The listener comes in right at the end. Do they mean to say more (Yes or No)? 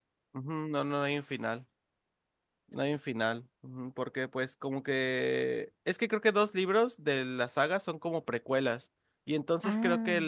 No